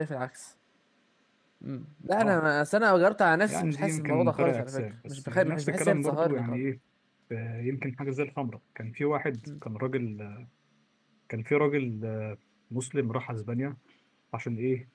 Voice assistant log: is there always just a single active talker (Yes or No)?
No